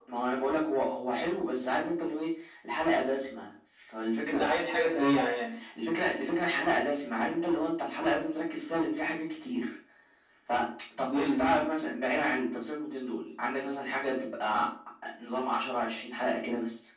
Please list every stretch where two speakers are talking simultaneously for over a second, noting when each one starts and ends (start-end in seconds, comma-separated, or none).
none